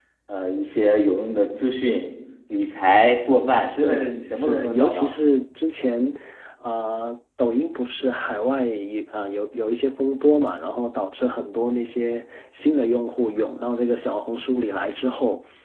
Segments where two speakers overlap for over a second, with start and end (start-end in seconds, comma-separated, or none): 3.8-5.2